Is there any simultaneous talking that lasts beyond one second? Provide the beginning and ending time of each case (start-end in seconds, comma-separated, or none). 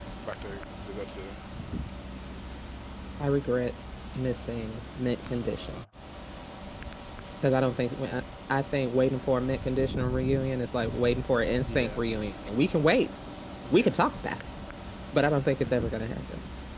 none